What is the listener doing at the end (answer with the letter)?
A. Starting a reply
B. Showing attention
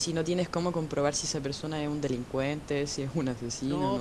A